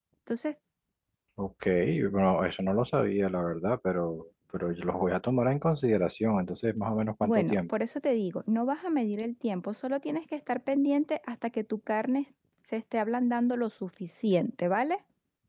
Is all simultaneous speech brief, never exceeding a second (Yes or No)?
Yes